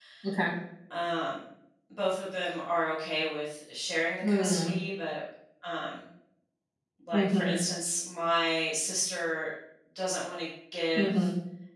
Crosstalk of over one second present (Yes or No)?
No